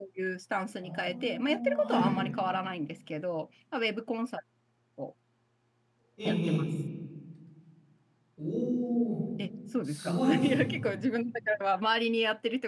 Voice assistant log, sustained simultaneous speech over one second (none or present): present